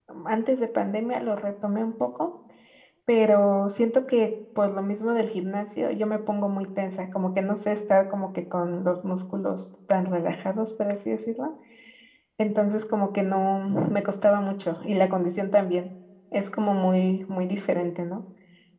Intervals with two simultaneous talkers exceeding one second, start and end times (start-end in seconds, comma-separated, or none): none